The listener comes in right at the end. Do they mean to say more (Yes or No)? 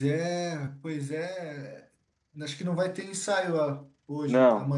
Yes